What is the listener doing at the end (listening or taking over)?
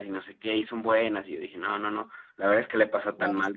listening